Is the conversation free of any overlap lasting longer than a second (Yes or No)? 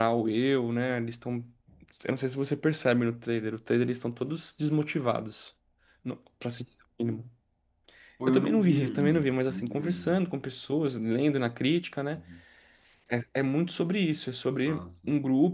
No